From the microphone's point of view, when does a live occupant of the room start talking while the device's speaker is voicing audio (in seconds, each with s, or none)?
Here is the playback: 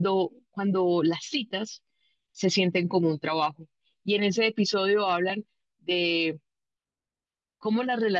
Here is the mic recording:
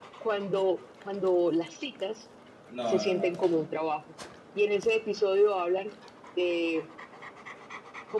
2.7 s